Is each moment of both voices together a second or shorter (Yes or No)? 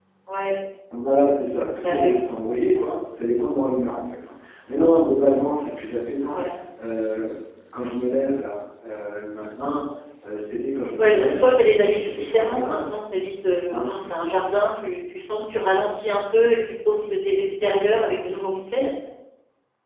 No